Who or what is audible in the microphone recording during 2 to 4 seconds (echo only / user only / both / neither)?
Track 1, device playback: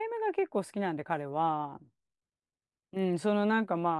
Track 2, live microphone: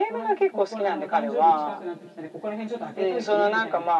both